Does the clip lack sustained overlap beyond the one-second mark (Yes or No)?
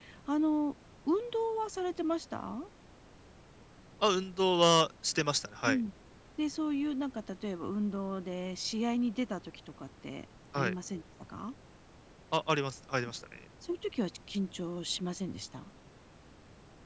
Yes